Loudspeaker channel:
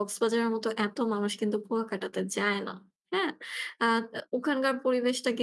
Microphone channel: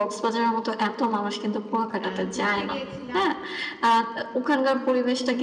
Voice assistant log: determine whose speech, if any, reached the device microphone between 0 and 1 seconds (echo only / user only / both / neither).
echo only